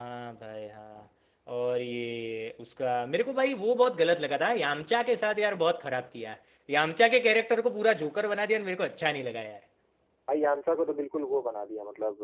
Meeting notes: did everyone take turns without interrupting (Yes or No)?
Yes